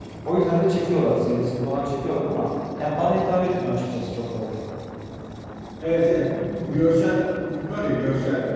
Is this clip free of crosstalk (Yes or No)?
Yes